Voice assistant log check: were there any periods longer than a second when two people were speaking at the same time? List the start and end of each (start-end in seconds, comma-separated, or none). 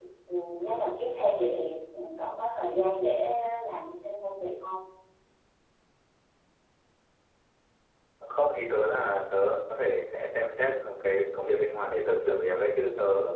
none